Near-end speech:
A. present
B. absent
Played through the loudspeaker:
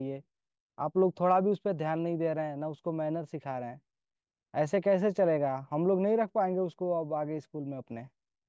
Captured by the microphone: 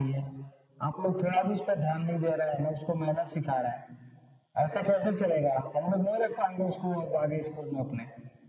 B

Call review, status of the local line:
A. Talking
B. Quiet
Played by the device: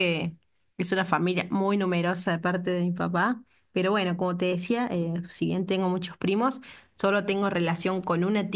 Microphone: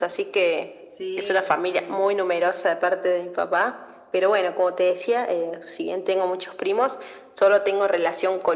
A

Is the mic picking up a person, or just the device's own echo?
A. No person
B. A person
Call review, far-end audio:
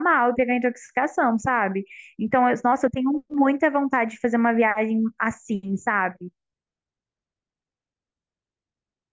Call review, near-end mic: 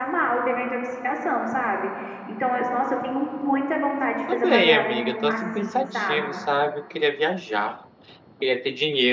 B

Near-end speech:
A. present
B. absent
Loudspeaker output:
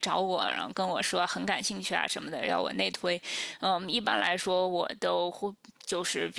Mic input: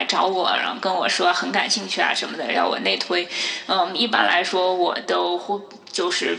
B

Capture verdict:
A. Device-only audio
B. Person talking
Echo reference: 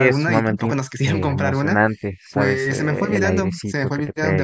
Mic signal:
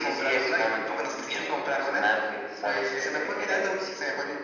A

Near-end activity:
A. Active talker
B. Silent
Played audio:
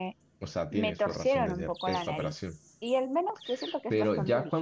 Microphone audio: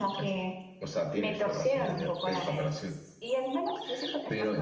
B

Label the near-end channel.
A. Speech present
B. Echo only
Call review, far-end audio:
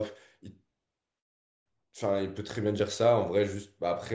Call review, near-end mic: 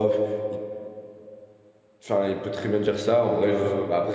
A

